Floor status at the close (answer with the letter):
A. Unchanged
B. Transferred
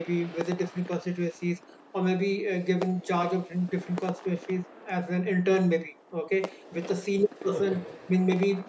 A